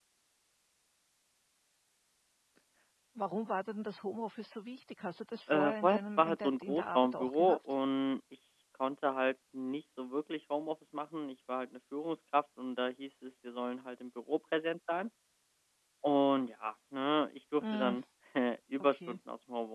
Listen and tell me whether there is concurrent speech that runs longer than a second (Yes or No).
Yes